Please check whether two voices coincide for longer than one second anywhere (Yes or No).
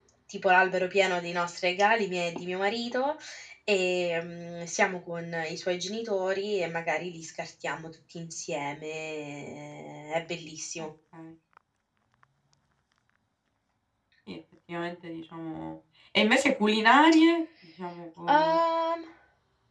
No